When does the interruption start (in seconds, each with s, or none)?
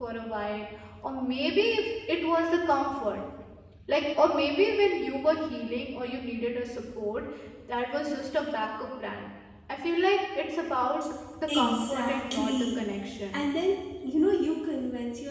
11.5 s